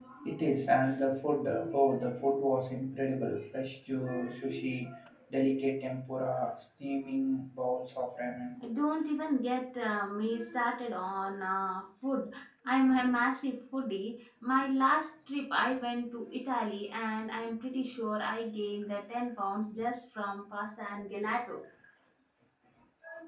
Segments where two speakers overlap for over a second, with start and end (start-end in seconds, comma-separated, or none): none